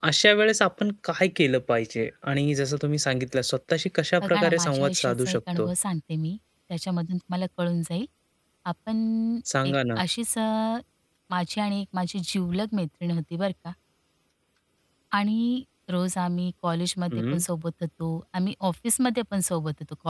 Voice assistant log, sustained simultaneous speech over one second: present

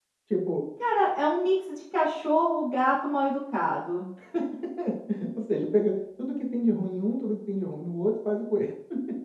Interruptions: none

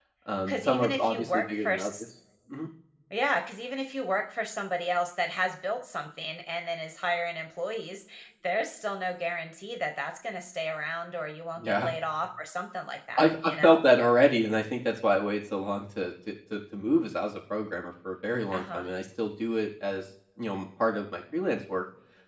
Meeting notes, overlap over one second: present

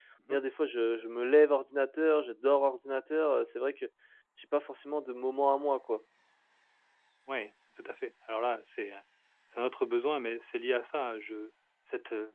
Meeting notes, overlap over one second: none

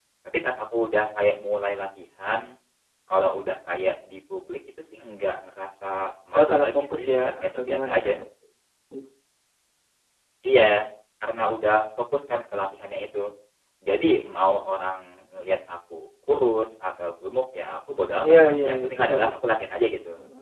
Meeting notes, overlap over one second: present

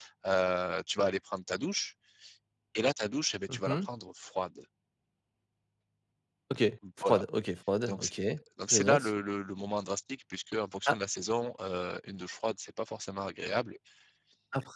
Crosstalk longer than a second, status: none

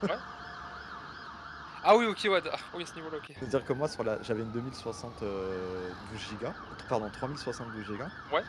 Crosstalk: none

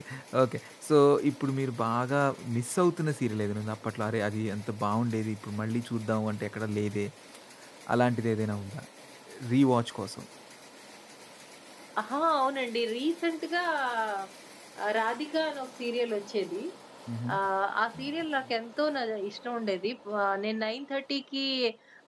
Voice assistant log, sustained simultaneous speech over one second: none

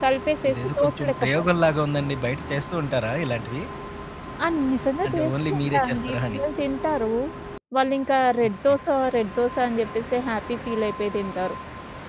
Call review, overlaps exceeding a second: present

